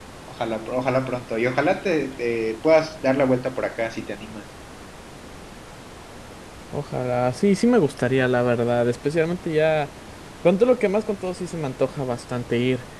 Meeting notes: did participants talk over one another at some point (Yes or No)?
No